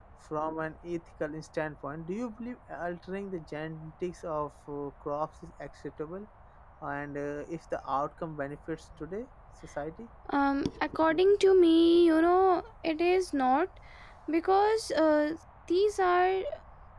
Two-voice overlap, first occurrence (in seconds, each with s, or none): none